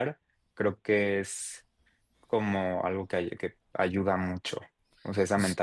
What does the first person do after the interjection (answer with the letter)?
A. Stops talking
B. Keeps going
A